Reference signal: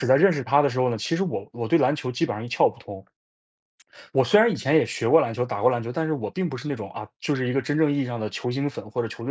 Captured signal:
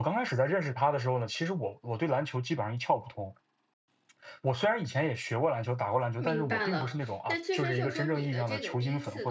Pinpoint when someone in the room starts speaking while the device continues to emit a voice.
6.2 s

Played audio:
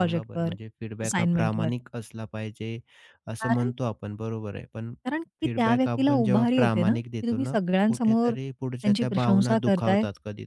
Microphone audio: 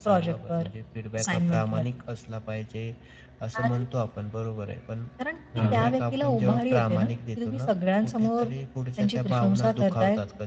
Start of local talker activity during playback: 5.6 s

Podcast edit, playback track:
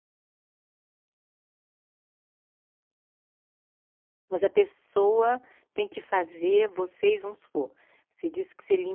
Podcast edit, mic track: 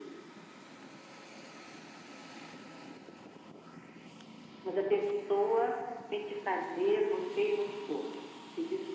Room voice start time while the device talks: none

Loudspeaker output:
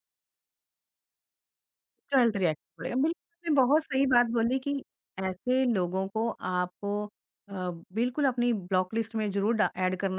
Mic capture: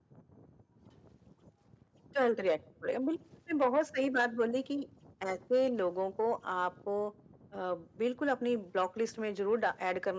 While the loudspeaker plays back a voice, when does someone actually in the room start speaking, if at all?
none

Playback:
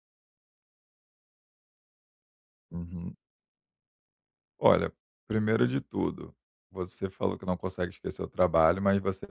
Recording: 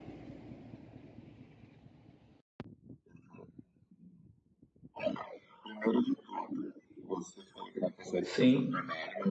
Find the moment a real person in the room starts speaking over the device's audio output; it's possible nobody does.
8.2 s

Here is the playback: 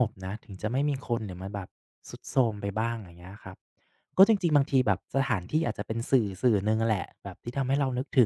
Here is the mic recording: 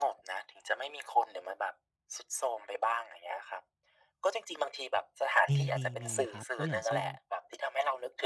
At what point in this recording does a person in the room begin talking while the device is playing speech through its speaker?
5.5 s

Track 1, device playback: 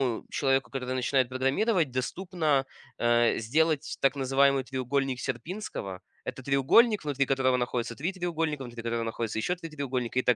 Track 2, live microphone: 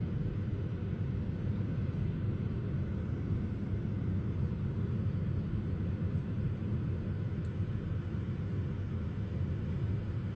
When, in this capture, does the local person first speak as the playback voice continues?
none

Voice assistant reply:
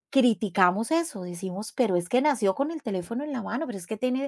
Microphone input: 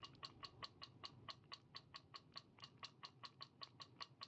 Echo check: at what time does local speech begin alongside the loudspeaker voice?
none

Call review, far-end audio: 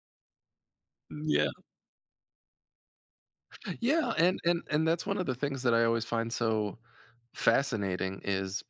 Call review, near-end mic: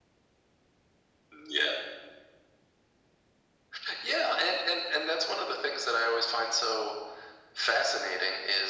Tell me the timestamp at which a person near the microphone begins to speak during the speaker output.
none

